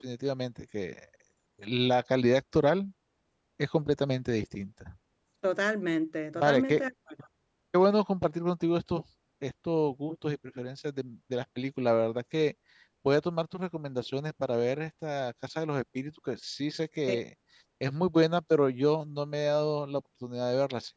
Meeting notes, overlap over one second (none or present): none